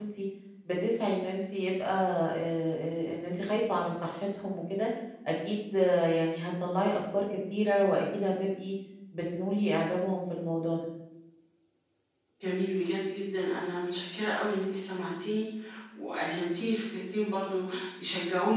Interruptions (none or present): none